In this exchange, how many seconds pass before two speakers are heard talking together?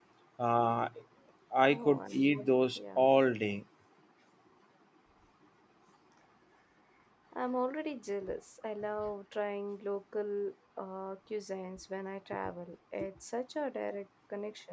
1.7 s

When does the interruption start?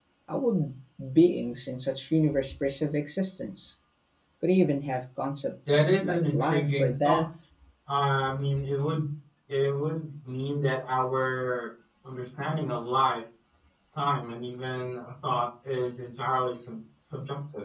5.7 s

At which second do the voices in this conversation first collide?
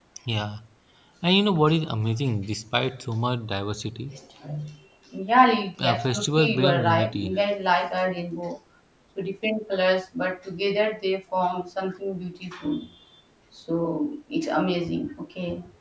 5.8 s

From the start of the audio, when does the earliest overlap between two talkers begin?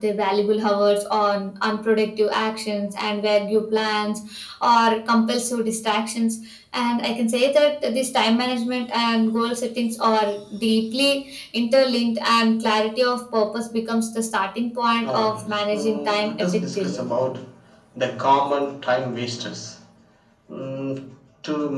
15.0 s

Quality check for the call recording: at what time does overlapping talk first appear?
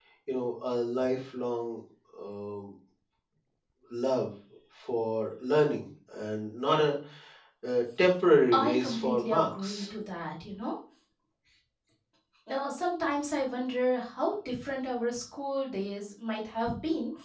8.5 s

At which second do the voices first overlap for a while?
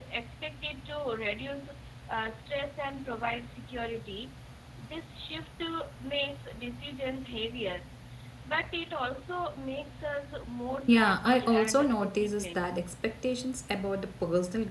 10.9 s

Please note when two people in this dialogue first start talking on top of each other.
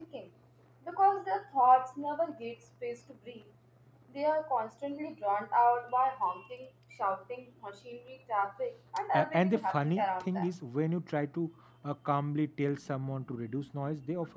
9.1 s

